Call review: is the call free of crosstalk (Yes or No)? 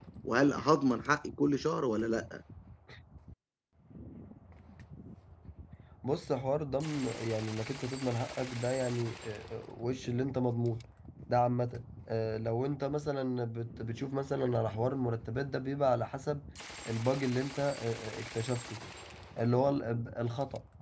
Yes